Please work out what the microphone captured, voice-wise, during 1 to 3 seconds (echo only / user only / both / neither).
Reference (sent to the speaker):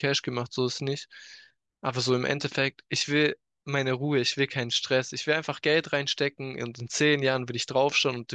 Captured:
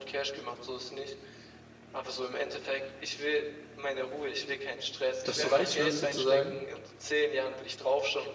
echo only